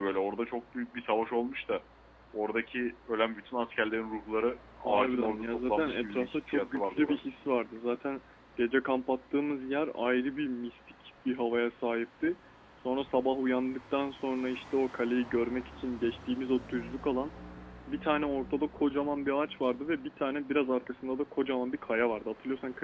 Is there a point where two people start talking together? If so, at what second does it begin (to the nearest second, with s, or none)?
5 s